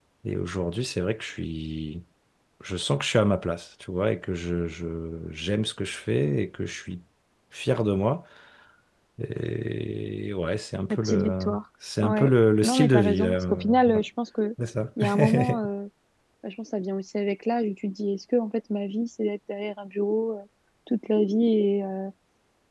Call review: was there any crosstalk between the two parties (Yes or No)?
Yes